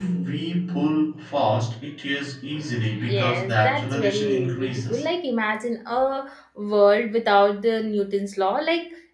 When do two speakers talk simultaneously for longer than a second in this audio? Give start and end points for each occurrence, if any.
3.1-5.1

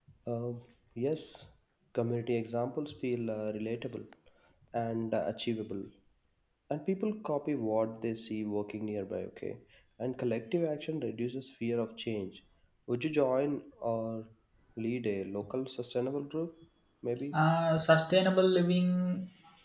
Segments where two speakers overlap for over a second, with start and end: none

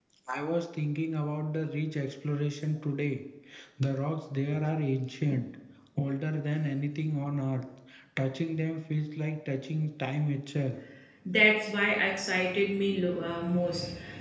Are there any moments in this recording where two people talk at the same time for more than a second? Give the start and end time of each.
none

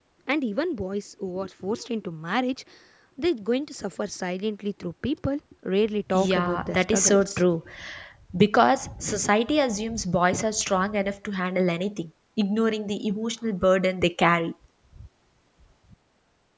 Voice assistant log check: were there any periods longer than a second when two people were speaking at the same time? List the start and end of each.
6.1-7.4

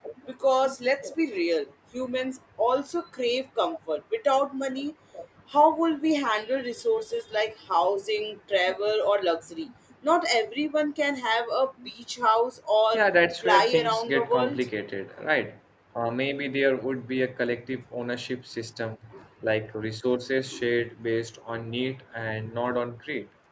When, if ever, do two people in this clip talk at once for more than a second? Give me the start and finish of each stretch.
13.4-14.6

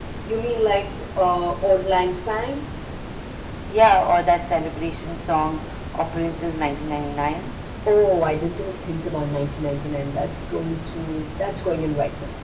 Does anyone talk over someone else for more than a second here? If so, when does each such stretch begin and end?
none

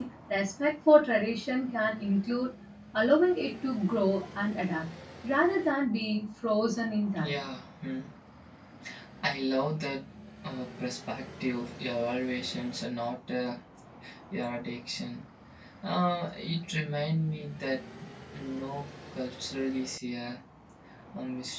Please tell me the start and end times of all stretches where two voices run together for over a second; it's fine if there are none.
none

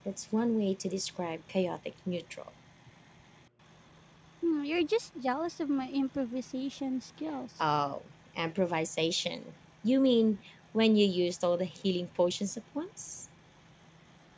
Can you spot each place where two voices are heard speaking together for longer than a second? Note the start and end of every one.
none

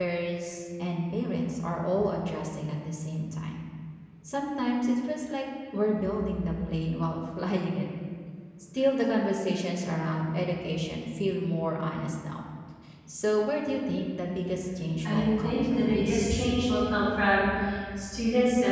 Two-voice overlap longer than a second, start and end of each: 15.0-16.5

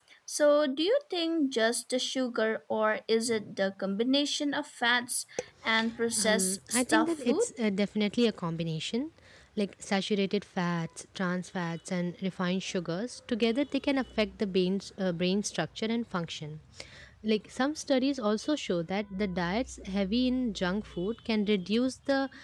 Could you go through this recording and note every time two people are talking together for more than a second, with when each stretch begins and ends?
6.3-7.5

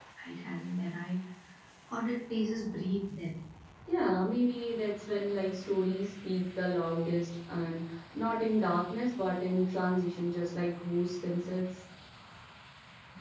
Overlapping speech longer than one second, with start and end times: none

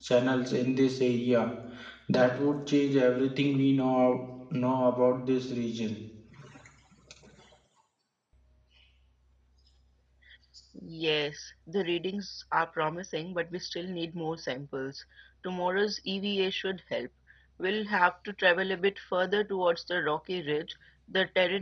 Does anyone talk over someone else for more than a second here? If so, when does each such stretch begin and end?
none

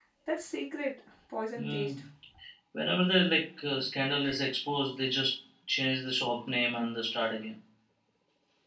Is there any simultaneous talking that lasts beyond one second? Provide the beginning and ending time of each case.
none

